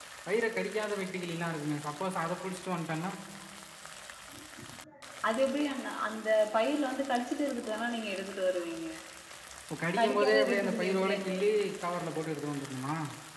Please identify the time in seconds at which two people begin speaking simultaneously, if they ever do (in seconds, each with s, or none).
10.0 s